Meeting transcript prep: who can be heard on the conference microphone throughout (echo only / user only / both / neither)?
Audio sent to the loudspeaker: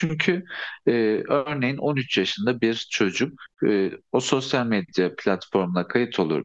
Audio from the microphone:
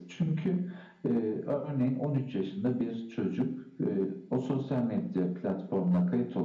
echo only